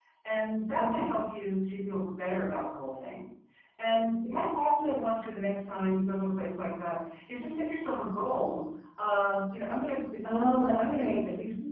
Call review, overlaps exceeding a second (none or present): none